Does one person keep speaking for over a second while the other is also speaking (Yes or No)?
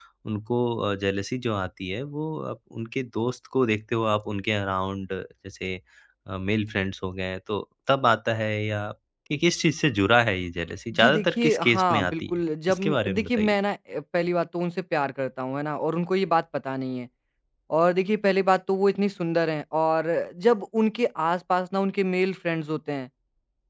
Yes